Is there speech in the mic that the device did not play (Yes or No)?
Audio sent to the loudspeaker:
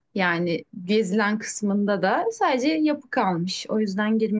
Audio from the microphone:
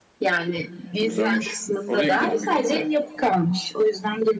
Yes